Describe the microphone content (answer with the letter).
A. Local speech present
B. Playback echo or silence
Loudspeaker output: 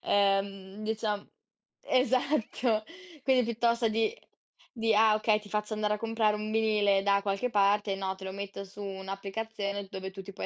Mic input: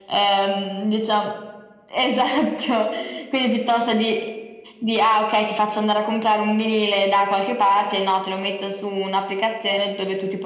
B